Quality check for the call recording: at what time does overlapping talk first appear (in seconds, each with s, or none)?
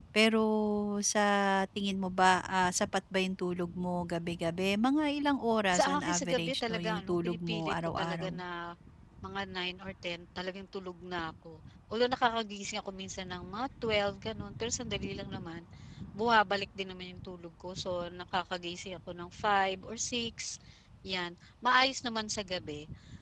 5.7 s